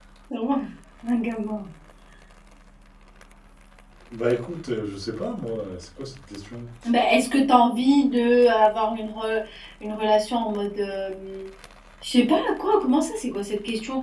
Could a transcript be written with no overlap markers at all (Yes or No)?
Yes